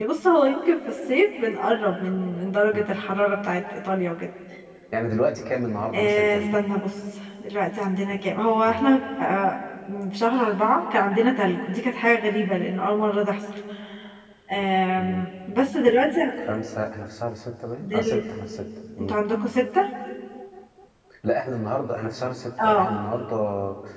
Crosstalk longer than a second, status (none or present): none